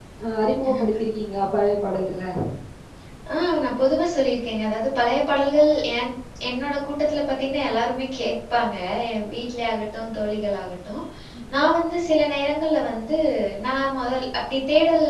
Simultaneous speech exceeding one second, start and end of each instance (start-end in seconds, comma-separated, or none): none